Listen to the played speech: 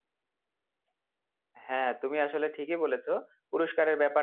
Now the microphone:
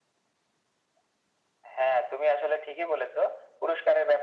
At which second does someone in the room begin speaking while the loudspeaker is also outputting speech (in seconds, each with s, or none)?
none